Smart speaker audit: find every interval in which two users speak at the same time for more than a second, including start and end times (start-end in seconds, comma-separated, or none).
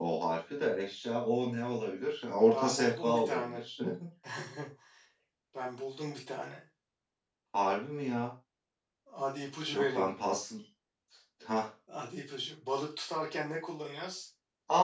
2.4-3.6